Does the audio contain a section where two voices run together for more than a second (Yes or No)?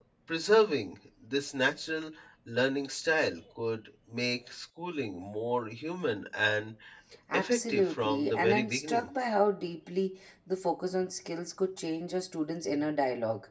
Yes